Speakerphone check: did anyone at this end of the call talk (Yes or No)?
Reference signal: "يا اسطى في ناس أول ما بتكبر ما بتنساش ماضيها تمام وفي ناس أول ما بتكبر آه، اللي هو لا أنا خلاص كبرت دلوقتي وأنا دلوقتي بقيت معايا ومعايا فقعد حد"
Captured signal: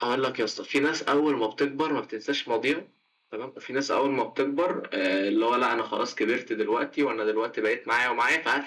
No